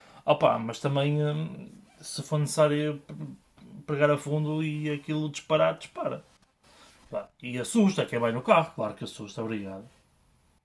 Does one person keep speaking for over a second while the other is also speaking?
No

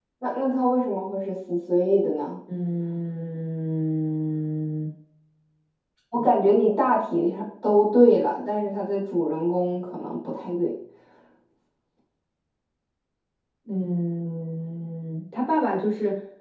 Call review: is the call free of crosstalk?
Yes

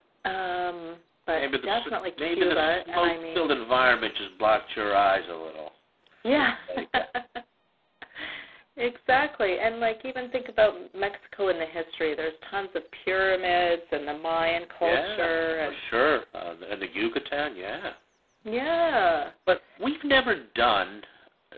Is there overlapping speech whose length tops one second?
Yes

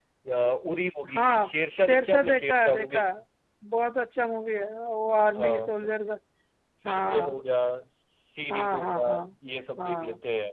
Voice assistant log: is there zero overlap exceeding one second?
No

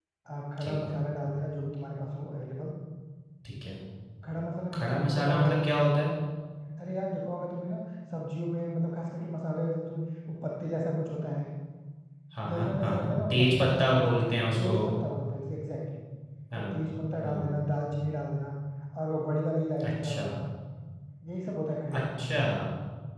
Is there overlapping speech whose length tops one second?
Yes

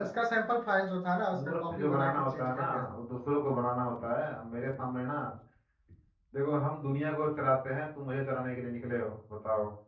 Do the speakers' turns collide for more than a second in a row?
Yes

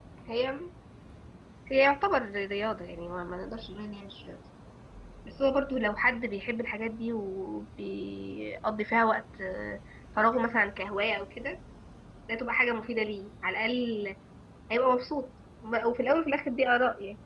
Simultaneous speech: No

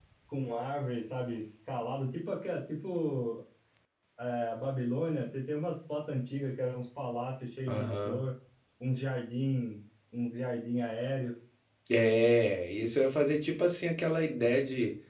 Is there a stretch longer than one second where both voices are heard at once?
No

